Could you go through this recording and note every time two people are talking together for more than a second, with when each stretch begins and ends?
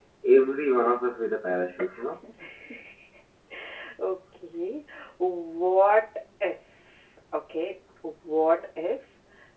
none

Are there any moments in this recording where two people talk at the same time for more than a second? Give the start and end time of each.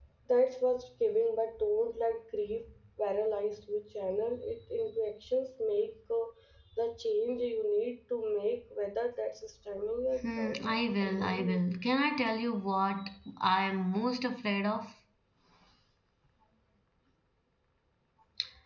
10.2-11.8

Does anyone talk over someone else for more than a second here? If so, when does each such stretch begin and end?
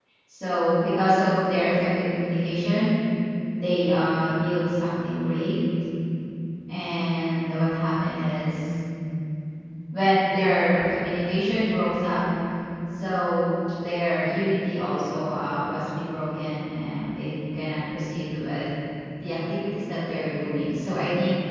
none

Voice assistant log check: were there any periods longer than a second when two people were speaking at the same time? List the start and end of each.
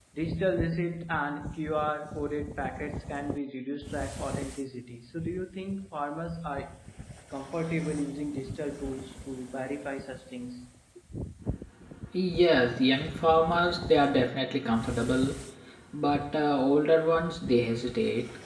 none

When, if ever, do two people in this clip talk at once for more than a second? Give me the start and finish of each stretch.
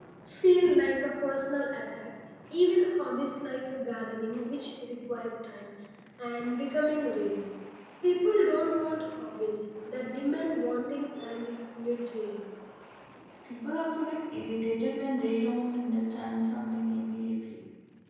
none

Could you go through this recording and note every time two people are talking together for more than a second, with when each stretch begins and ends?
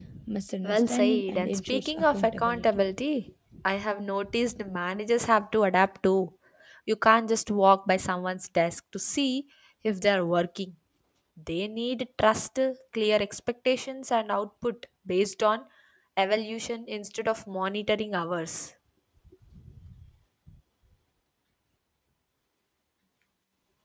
0.6-2.6

